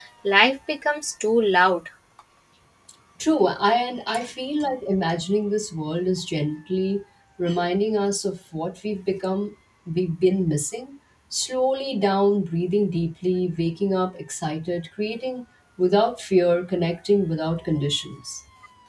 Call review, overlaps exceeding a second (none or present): none